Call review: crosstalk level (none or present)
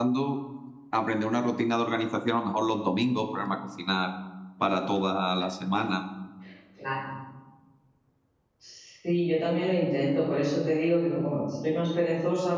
none